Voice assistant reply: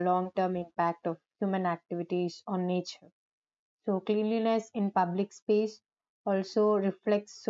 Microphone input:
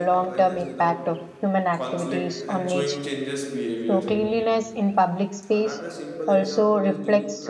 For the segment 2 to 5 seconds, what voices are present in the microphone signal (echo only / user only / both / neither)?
both